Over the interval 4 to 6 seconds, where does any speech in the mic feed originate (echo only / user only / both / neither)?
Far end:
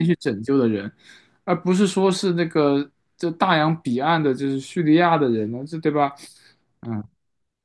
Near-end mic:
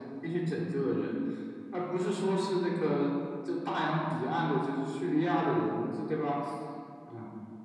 echo only